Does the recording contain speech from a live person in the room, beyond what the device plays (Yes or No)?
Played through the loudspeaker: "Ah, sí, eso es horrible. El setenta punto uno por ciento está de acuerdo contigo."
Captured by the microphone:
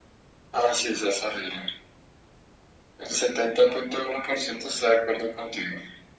No